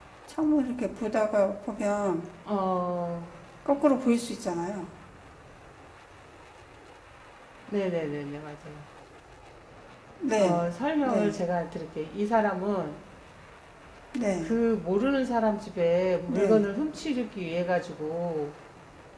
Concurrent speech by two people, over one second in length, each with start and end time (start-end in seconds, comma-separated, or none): none